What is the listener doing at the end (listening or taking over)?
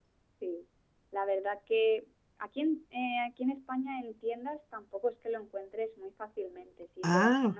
listening